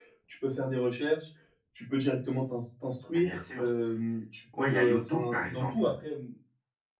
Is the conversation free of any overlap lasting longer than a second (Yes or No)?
No